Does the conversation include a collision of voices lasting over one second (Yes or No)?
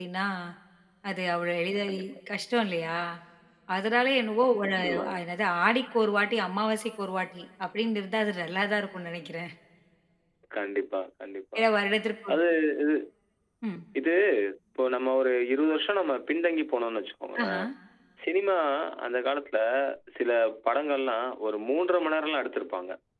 No